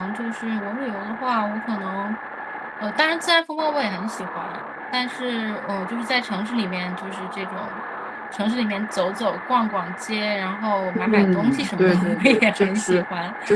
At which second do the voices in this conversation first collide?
11.0 s

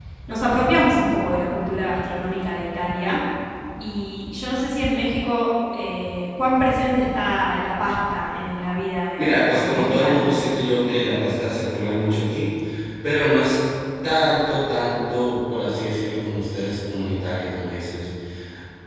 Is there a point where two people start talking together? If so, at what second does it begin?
9.2 s

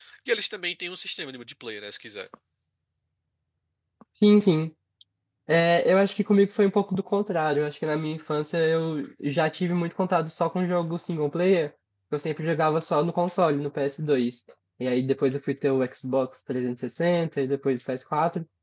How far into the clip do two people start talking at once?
none

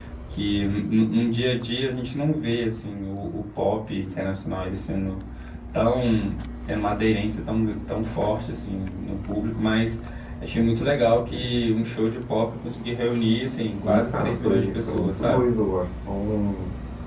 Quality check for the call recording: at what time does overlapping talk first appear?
13.8 s

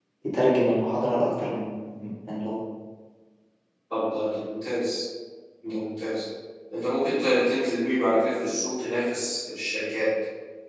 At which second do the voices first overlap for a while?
none

